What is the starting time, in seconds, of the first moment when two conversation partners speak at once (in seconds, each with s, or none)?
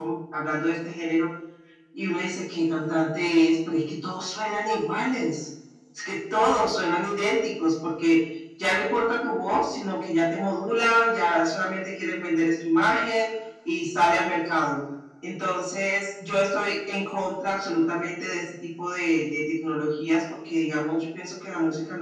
none